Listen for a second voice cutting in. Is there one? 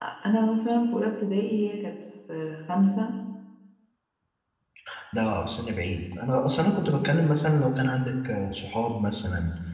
No

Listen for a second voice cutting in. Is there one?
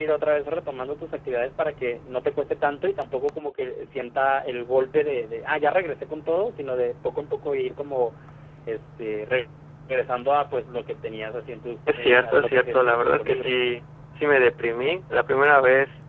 Yes, from 11.9 s

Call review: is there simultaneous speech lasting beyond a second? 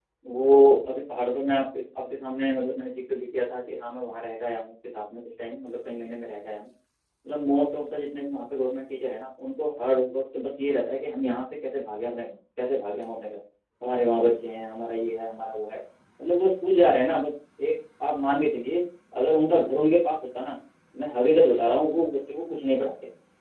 No

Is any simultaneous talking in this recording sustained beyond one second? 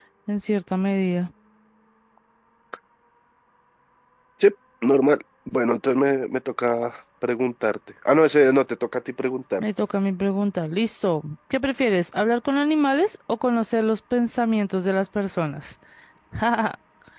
No

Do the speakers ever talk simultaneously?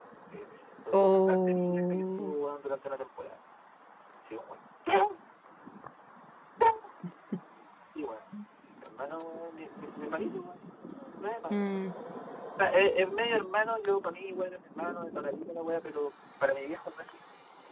Yes, from 0.9 s

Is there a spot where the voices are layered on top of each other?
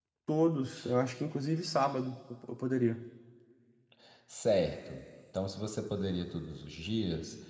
No

